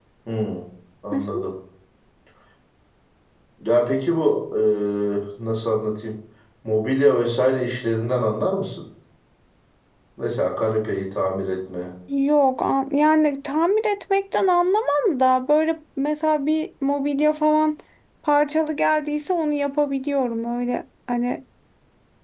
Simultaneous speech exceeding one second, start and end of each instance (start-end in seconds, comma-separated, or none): none